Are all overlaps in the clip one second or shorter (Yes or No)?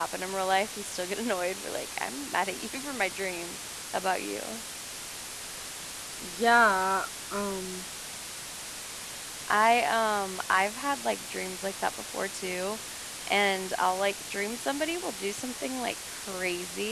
Yes